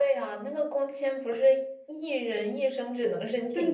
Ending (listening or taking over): taking over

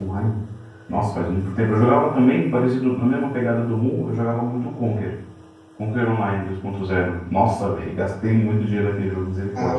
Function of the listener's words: taking over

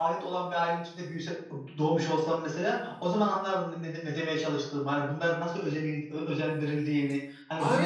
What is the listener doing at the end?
taking over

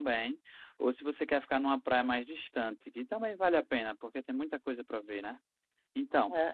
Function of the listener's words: taking over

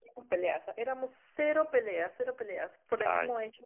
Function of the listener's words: listening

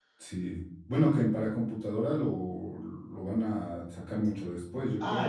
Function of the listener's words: taking over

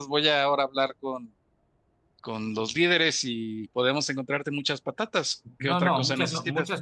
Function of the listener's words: taking over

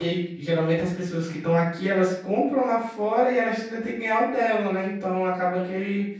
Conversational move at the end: listening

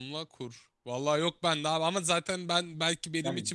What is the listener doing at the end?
listening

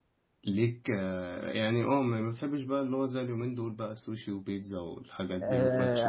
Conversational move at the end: taking over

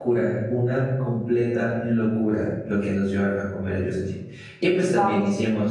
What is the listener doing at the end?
taking over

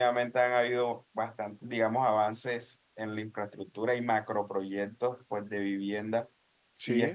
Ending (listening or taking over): listening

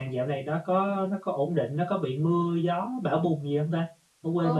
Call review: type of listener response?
taking over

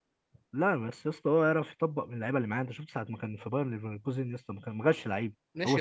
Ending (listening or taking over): taking over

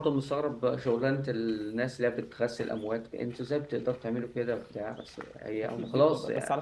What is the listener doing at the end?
taking over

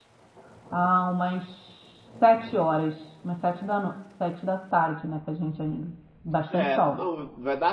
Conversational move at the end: taking over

